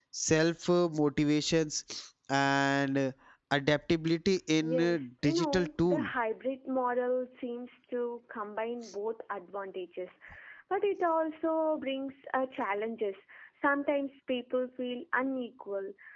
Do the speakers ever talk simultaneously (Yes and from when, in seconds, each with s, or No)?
Yes, from 4.6 s